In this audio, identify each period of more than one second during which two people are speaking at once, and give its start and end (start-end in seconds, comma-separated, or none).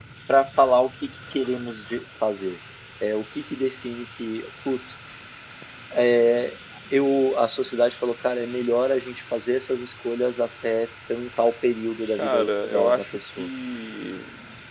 12.1-13.5